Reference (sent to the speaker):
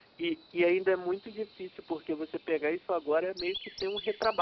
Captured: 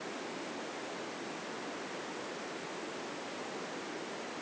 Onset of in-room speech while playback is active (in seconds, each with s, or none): none